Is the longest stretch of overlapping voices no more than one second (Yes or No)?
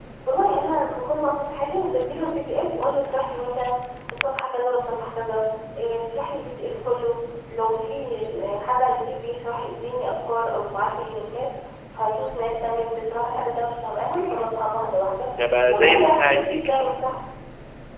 No